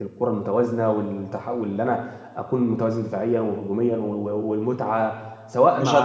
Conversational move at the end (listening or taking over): taking over